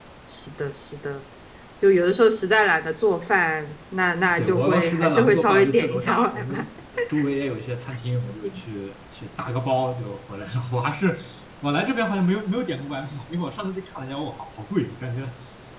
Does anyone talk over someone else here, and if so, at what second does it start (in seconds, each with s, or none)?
4.3 s